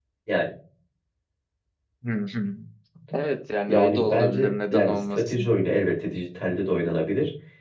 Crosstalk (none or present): present